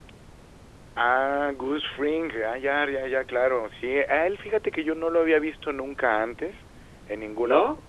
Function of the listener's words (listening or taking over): listening